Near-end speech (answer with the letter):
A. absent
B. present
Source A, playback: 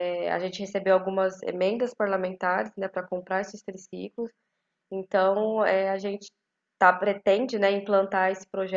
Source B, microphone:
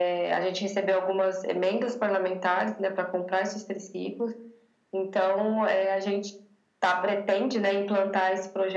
A